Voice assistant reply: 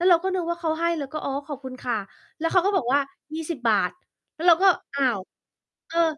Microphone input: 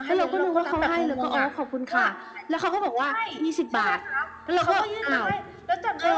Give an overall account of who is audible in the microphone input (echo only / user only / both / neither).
both